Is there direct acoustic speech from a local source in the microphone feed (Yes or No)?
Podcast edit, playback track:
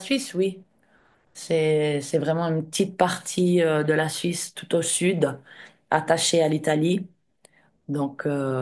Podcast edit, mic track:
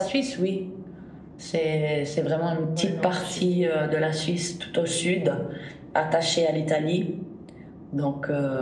Yes